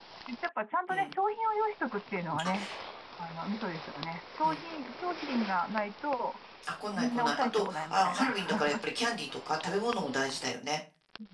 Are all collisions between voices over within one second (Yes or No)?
No